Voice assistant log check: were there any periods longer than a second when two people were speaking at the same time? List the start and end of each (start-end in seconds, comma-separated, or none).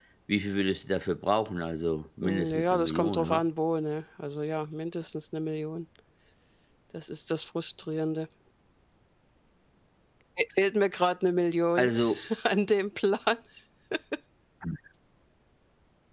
2.2-3.4